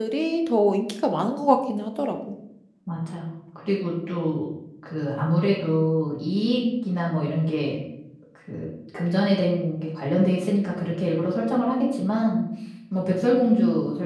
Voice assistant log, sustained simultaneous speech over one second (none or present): none